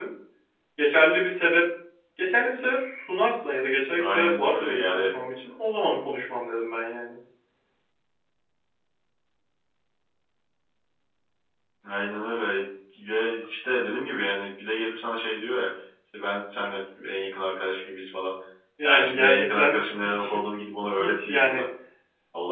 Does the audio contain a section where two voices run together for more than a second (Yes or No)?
Yes